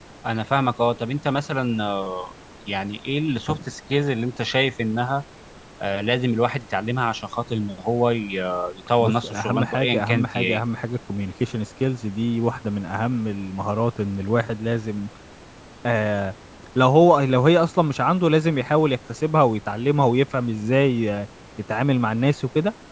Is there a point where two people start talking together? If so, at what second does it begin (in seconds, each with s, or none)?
9.0 s